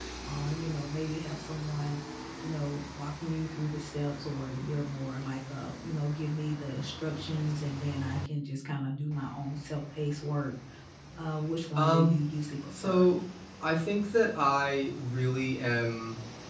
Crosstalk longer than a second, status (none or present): none